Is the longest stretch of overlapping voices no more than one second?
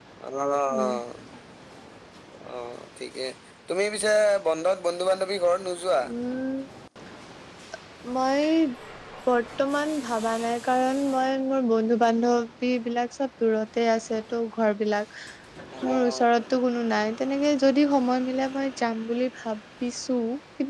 Yes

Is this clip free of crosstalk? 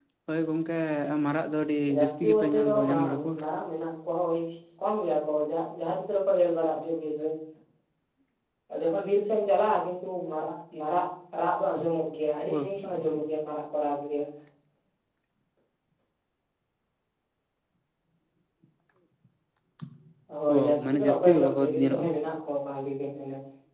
No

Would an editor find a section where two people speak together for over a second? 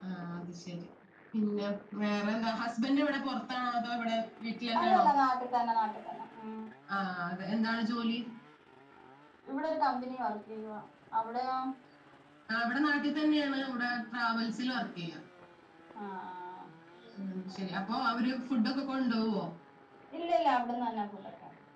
No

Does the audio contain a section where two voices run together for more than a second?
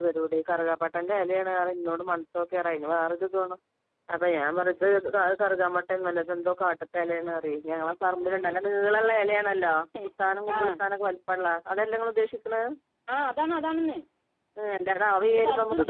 No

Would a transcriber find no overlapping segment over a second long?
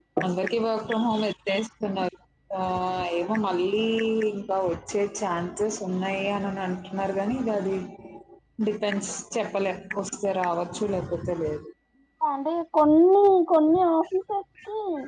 Yes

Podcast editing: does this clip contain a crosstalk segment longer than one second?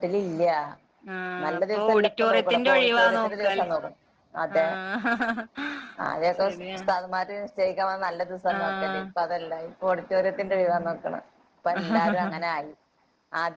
Yes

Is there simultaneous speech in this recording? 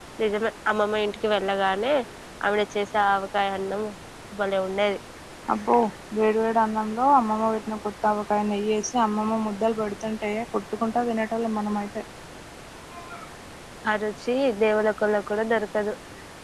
No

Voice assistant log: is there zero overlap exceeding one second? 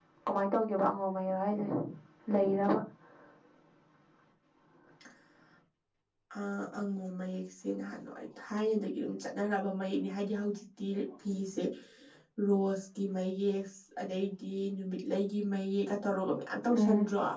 Yes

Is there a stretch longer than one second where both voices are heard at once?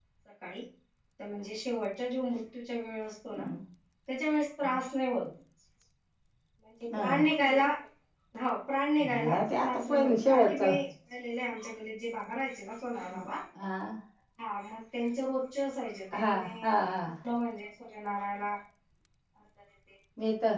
Yes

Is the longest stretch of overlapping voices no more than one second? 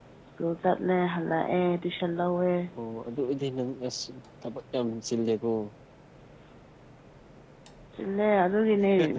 Yes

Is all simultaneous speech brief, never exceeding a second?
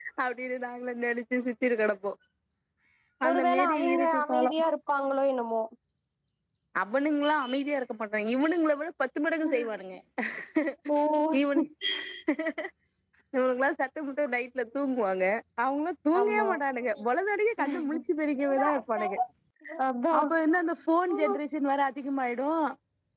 No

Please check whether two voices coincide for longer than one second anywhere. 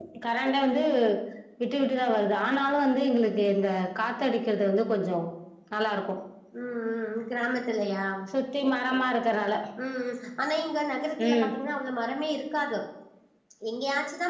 No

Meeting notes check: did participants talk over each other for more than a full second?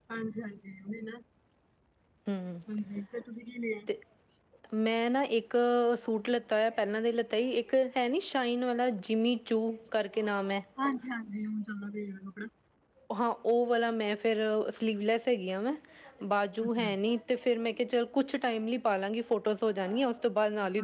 No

